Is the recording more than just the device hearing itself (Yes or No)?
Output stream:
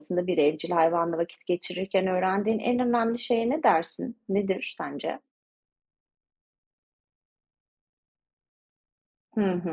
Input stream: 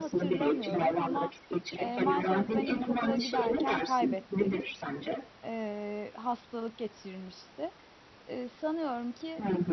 Yes